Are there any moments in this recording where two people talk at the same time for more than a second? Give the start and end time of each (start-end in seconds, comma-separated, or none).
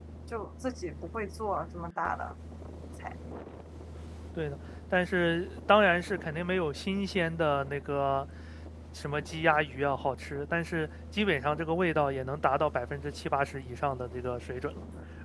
none